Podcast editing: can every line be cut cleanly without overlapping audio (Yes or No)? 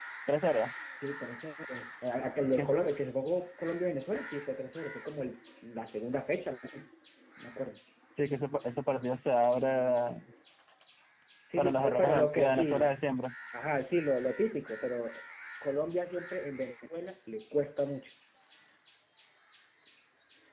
No